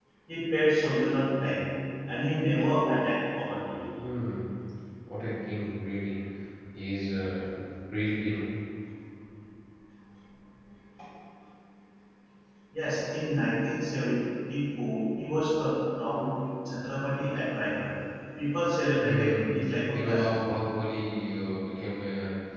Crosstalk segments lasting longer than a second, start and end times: 19.0-20.5

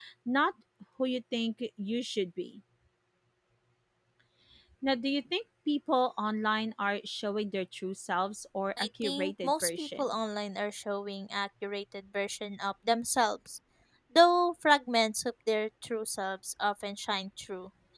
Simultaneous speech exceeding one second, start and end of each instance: 8.8-10.1

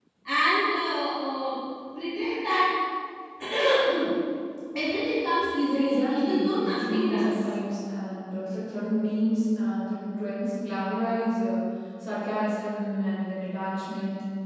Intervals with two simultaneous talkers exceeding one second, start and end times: 5.6-7.3

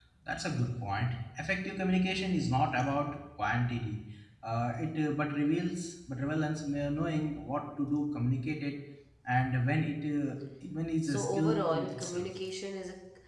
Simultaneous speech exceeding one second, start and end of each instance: 11.0-12.3

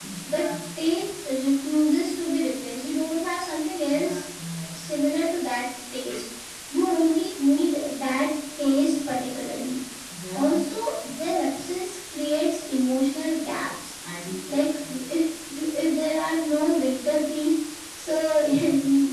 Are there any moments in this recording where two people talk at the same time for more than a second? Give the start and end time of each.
none

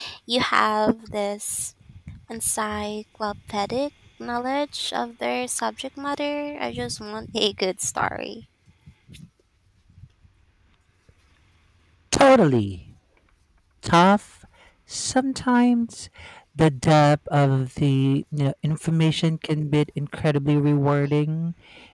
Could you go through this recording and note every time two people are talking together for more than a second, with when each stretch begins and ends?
none

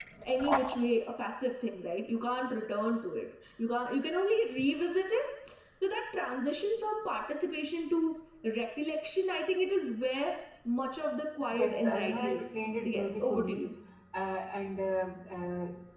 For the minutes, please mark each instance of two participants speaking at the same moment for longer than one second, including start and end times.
11.5-13.7

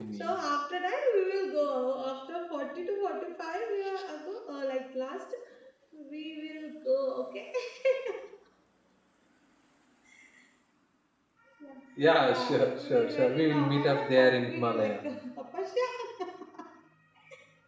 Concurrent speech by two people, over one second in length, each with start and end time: 12.2-15.0

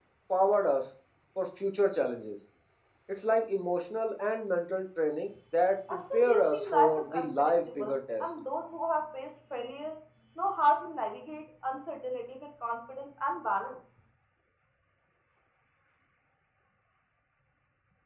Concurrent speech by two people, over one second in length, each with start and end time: 5.9-8.3

